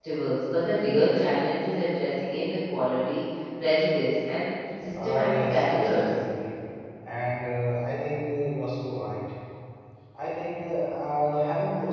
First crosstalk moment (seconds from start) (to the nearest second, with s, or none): 5 s